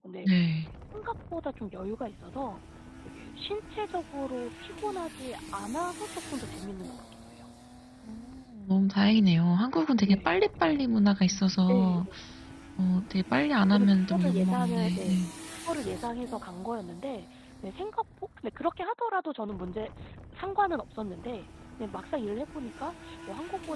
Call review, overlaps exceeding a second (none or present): present